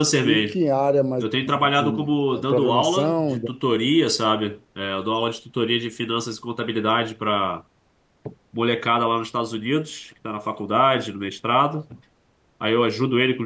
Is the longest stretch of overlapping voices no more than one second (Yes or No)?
No